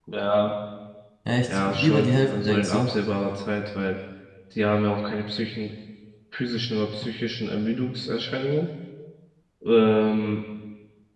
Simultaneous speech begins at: 1 s

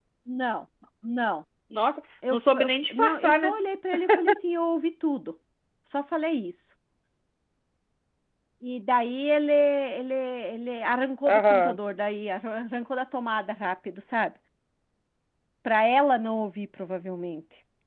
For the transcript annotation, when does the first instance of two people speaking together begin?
2 s

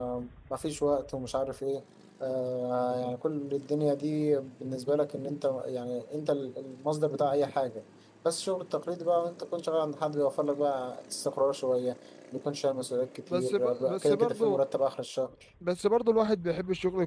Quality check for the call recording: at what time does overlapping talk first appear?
13 s

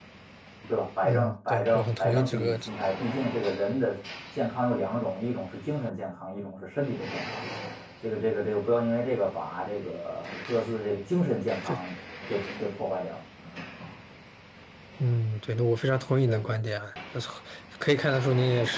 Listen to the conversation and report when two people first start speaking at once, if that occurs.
1 s

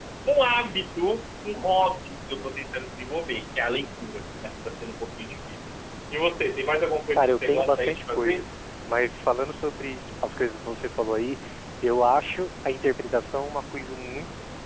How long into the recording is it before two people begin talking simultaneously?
7 s

